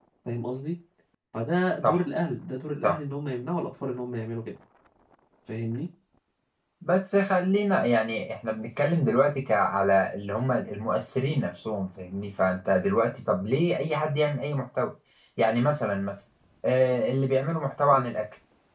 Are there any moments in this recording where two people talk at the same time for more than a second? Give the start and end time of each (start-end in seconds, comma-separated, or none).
none